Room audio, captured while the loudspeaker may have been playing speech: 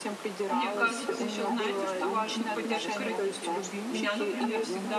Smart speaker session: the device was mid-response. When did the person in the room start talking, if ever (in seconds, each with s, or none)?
0.5 s